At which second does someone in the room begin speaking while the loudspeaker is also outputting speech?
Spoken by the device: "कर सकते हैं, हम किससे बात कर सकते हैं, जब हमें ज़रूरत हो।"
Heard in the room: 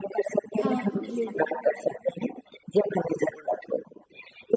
0.6 s

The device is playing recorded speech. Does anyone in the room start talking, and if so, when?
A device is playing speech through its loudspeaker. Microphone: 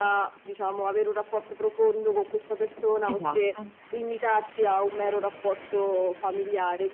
3.0 s

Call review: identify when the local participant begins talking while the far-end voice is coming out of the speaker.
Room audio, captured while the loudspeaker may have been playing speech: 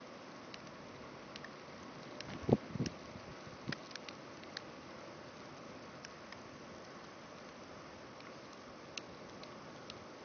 none

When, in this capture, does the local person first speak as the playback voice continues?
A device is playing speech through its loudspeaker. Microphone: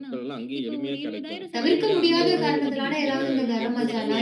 1.6 s

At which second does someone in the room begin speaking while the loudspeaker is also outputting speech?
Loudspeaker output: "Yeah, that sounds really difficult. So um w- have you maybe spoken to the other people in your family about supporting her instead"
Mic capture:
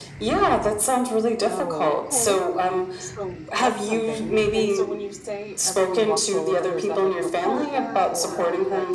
1.5 s

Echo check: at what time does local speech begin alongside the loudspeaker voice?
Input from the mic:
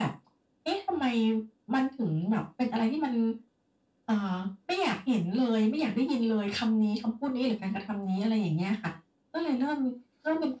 none

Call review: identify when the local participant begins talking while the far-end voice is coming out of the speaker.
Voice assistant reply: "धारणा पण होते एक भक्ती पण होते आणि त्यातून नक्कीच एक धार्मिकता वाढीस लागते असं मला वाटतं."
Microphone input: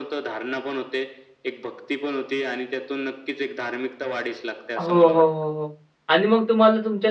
4.8 s

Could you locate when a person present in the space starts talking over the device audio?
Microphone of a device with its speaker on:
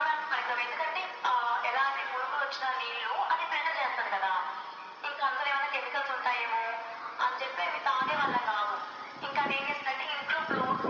none

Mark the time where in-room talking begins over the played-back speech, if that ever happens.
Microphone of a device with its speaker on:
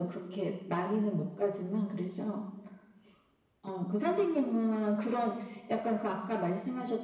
none

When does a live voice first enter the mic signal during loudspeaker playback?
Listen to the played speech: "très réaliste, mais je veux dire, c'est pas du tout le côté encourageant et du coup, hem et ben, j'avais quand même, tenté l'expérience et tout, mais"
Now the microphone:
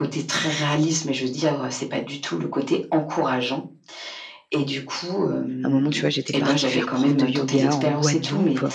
5.6 s

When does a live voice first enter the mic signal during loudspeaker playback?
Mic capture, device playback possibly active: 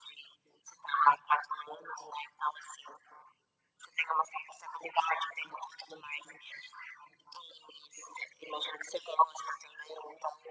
none

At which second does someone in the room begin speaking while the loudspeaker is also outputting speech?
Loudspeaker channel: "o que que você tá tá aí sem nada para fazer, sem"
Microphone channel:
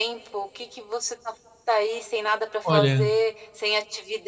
2.6 s

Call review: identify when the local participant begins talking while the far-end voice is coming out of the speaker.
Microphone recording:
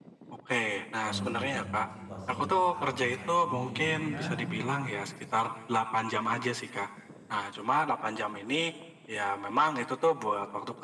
1.0 s

